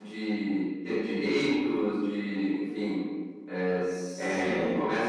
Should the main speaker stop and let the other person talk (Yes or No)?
No